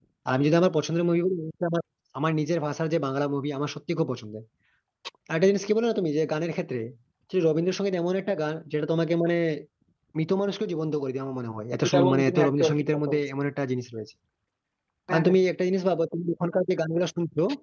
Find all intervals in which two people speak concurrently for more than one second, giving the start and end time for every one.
11.9-13.2

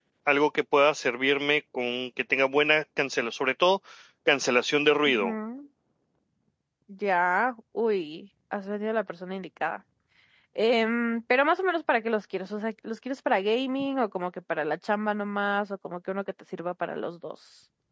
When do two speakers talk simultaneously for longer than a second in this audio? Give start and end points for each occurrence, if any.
none

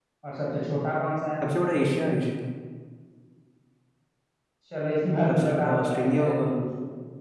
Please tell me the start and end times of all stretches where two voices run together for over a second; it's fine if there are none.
5.3-6.5

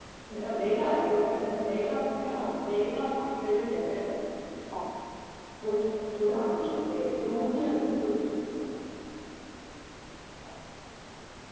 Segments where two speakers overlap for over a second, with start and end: 1.1-2.7

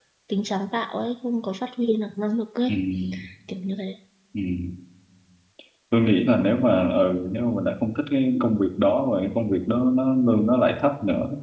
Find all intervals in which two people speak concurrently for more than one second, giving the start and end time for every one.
none

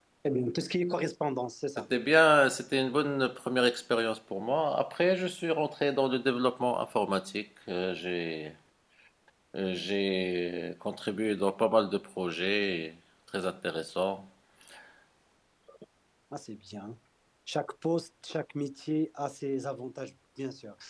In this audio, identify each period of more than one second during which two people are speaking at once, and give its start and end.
none

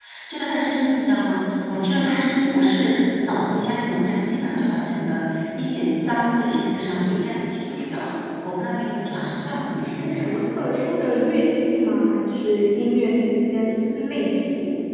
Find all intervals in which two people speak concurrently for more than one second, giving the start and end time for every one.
none

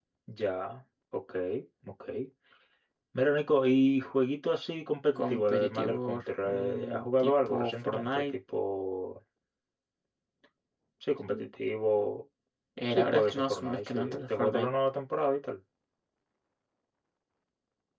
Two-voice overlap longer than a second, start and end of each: 5.2-8.3, 12.9-14.7

